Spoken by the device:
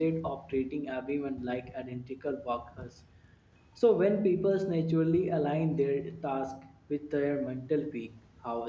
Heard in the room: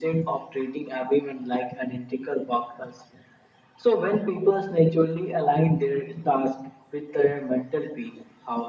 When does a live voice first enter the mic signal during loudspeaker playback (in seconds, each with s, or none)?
none